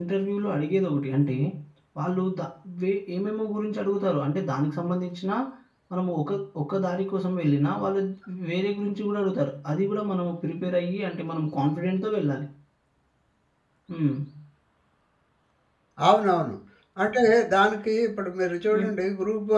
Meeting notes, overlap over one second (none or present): none